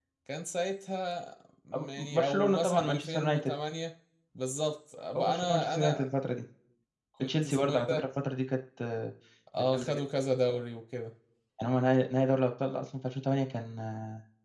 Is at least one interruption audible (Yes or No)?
Yes